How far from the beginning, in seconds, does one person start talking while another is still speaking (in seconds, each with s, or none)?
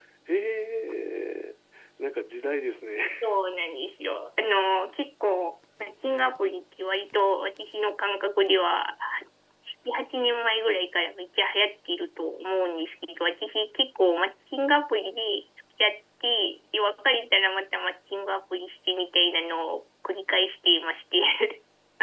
none